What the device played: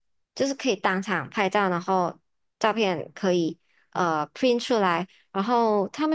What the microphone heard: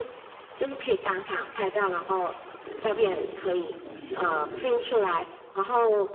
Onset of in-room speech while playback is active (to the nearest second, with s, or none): 3 s